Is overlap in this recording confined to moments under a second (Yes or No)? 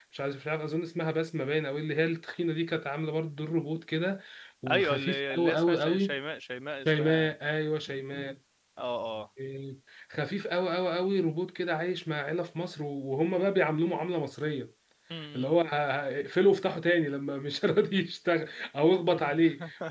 No